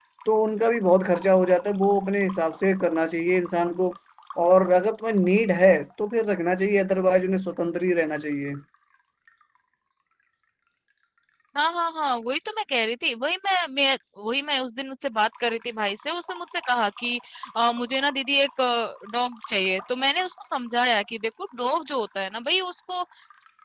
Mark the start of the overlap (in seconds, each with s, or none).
none